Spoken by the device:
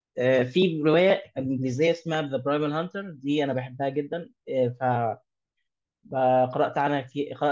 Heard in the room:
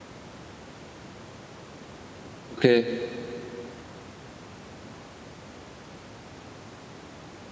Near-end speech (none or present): present